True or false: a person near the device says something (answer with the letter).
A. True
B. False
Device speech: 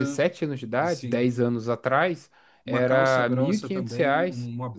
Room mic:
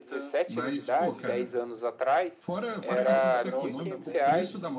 A